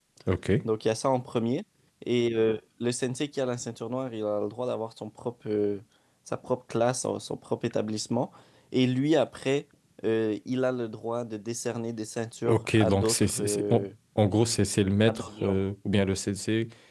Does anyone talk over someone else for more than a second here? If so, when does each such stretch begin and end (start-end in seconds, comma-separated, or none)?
12.4-13.9